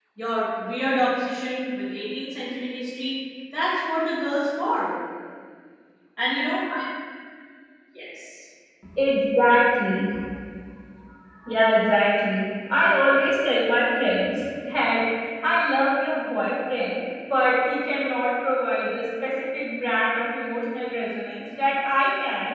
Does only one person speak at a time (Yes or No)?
Yes